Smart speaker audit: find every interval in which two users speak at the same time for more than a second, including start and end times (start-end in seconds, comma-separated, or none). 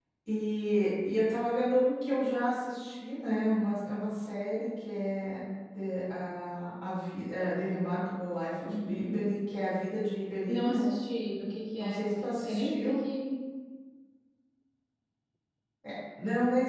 11.8-13.1